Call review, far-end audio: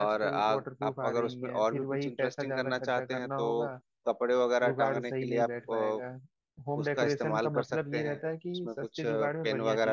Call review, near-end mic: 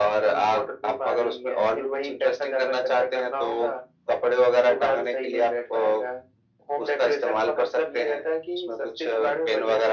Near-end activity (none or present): none